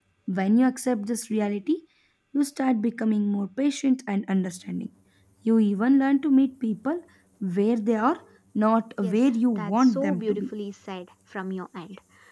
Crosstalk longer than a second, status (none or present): present